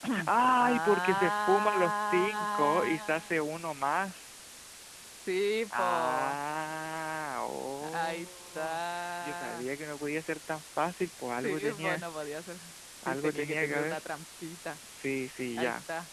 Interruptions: present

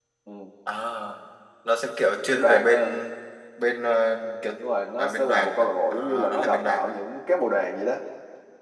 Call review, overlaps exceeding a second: present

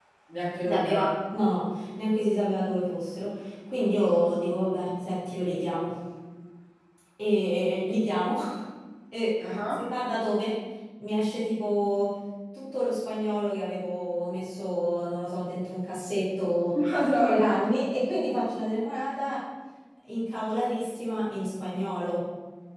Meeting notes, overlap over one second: none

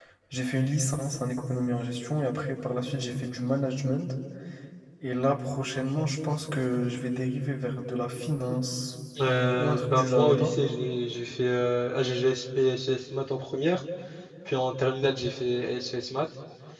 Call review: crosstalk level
present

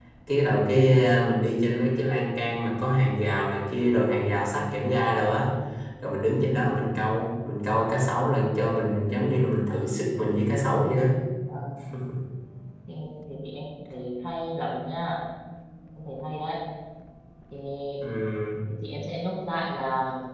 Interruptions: none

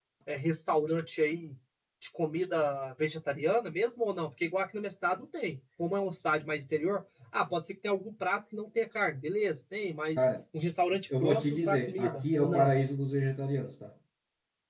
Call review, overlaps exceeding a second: present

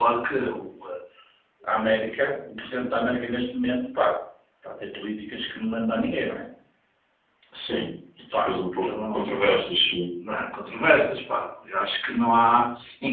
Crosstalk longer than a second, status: present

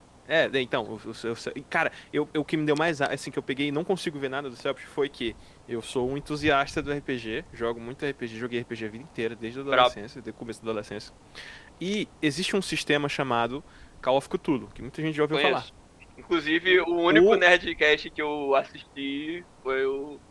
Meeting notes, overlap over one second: none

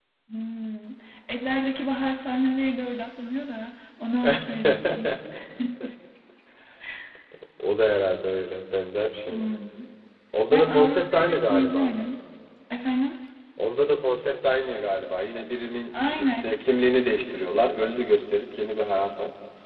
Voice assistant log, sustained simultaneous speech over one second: present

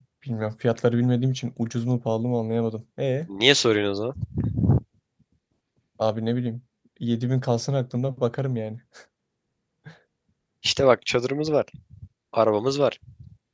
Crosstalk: none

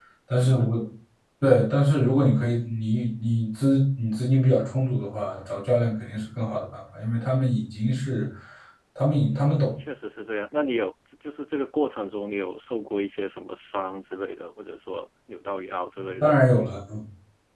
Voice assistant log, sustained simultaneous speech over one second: none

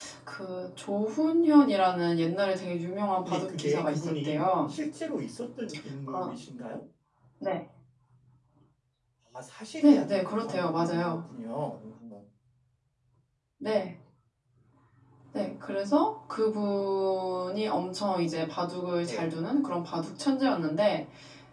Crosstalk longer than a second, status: present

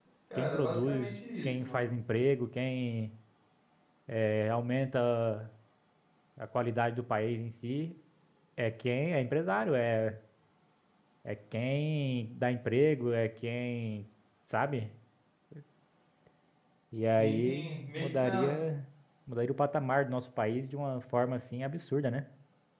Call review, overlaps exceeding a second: present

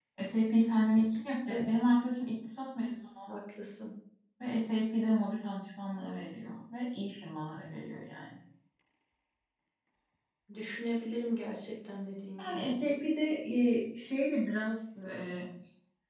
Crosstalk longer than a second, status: none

